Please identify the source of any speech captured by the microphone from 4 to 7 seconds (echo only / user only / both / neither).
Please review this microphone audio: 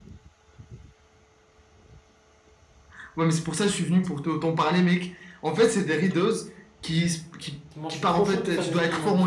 echo only